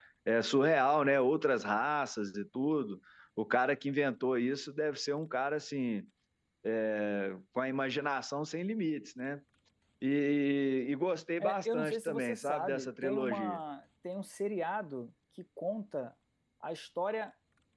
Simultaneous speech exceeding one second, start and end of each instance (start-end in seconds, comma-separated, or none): 11.4-13.6